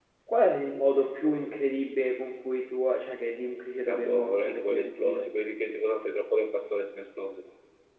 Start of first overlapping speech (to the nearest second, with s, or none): 4 s